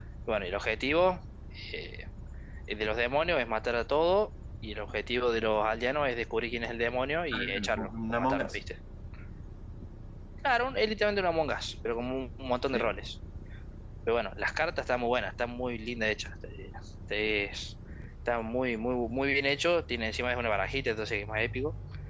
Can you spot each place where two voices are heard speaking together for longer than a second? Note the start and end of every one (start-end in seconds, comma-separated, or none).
7.3-8.6